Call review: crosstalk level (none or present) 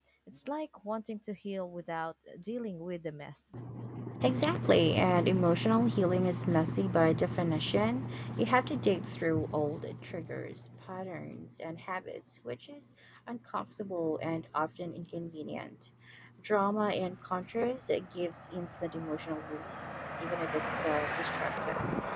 none